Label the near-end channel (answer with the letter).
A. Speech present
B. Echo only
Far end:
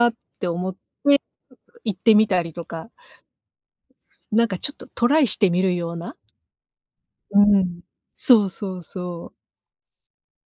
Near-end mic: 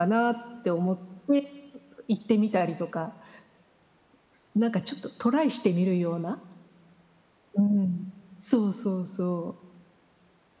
B